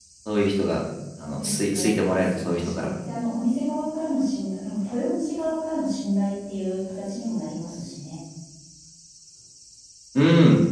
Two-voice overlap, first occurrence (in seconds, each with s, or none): 1.4 s